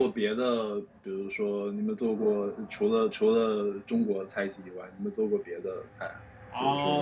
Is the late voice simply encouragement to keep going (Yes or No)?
No